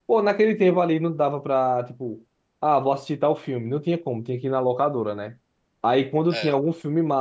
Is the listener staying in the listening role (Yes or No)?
Yes